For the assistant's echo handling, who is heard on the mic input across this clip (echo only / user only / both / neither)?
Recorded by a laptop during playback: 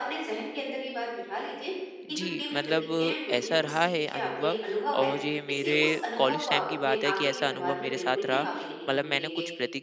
both